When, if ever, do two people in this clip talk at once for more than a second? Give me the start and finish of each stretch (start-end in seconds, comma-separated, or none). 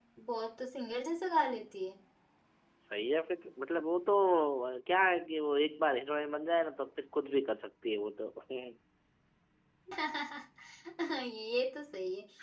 none